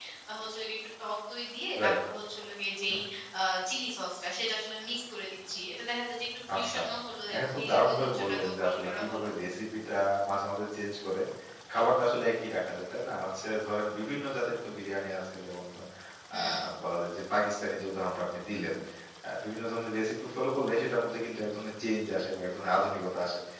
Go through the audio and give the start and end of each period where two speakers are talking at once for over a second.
7.3-9.3

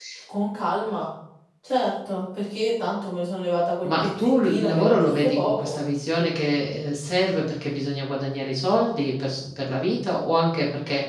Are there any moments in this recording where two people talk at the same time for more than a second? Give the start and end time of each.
3.8-5.8

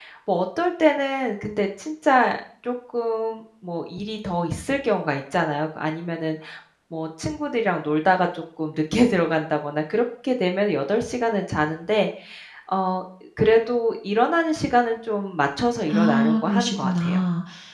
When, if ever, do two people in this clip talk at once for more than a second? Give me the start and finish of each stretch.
15.9-17.2

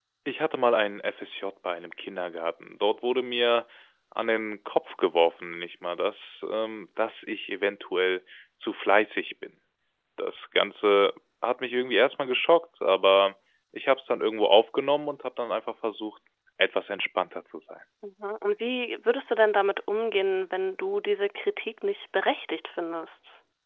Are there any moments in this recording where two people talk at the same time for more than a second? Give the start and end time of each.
none

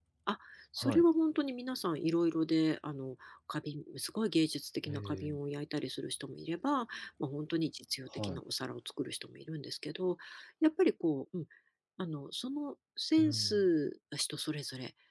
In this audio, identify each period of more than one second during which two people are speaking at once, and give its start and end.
none

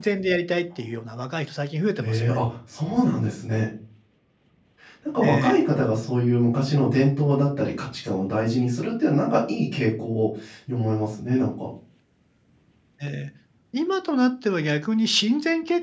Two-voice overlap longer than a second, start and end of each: none

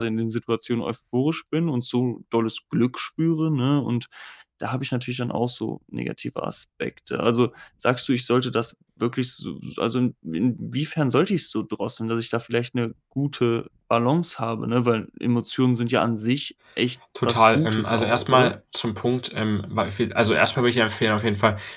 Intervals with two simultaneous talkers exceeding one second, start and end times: 17.2-18.6

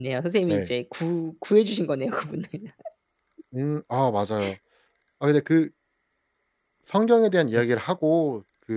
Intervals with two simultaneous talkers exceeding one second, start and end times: none

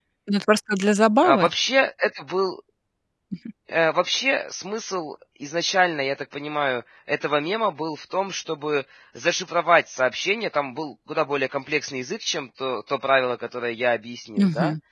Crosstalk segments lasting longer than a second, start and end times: none

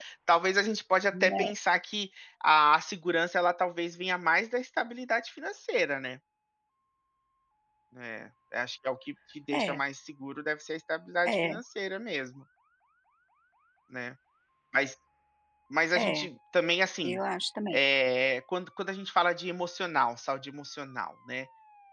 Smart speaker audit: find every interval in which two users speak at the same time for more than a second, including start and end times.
none

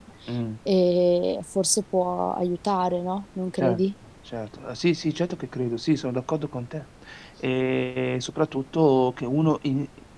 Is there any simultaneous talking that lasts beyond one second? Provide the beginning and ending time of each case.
none

